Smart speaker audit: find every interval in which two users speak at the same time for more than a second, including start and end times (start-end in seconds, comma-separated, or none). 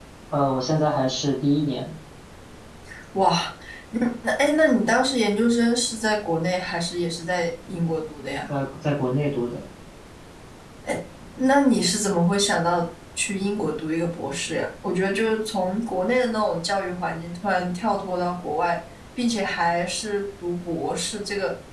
none